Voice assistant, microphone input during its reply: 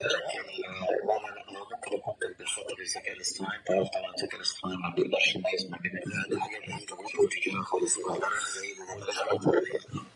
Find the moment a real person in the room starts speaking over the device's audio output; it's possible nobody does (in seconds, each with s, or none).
none